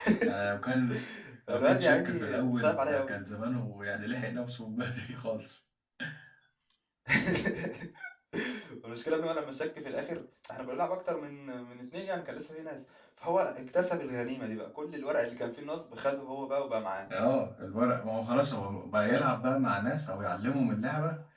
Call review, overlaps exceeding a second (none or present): present